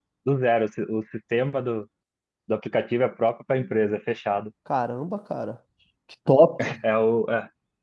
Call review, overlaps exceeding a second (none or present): none